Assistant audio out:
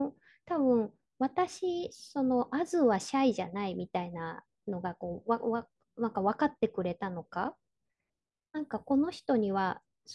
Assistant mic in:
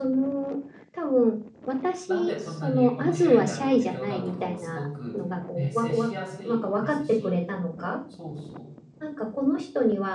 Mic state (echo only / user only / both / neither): both